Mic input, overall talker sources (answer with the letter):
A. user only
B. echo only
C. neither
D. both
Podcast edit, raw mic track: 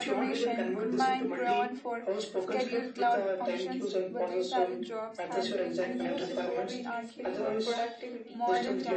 D